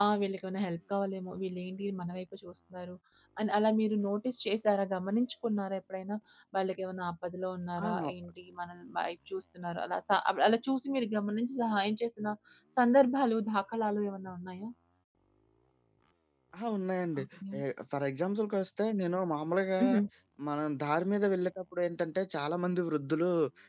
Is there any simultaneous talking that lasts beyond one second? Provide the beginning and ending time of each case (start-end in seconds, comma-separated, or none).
none